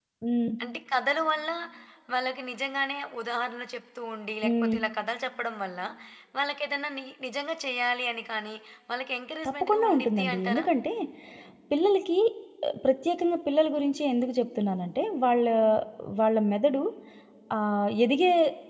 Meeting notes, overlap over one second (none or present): present